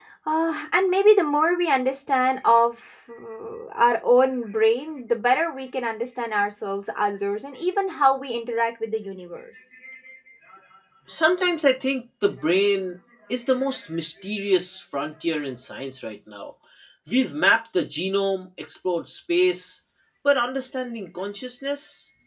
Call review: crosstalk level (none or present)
none